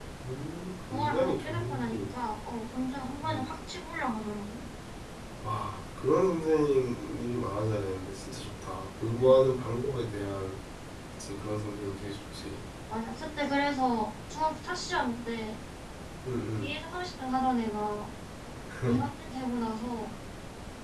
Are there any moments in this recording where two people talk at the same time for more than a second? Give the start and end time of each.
0.9-2.1

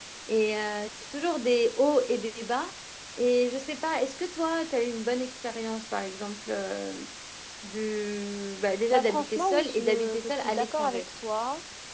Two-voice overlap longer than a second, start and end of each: 8.9-11.1

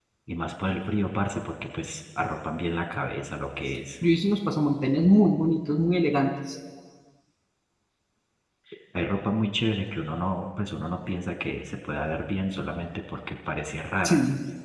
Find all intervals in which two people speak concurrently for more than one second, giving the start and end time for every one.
none

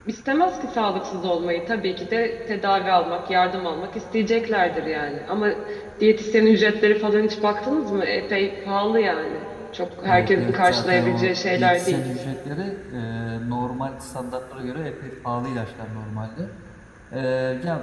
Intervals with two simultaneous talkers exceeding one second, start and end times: 10.1-12.0

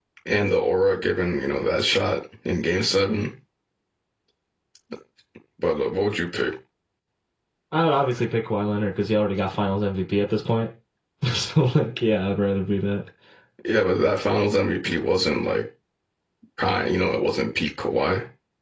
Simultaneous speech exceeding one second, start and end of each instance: none

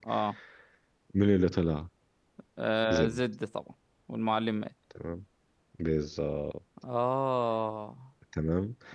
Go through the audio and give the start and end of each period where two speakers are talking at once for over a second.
none

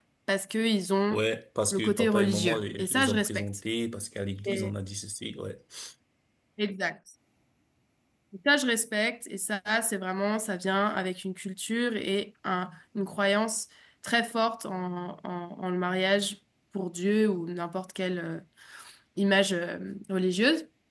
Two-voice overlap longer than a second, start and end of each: 1.7-3.4

